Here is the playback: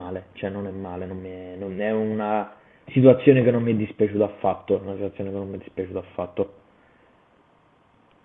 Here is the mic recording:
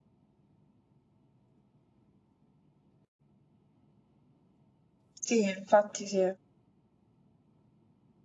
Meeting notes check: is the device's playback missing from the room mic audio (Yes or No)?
Yes